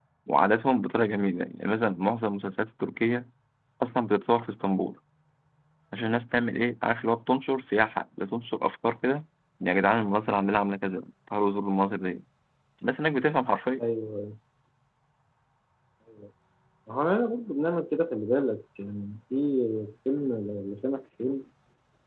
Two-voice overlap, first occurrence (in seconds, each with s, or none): none